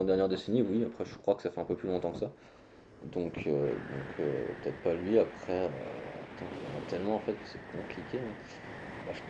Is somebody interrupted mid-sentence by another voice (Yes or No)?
No